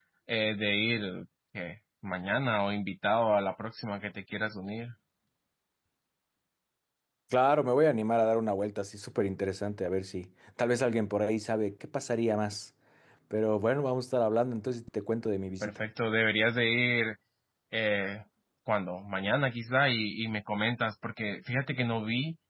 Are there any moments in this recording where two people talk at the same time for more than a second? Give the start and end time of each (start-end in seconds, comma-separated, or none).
none